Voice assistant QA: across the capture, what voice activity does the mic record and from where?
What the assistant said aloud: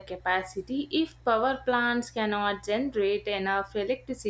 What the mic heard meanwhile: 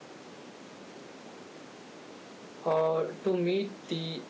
user only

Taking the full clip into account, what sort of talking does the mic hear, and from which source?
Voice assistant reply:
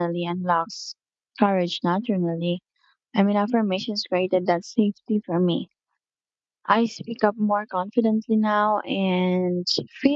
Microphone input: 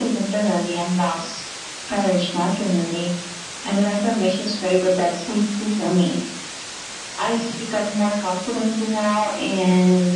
echo only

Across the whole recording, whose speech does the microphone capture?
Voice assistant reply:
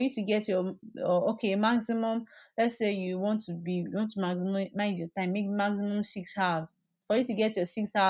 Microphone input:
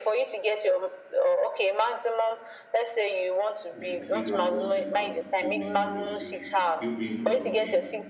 both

